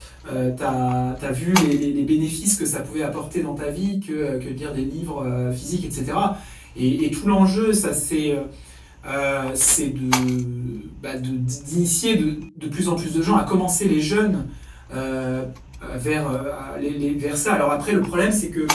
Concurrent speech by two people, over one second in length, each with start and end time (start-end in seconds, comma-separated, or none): none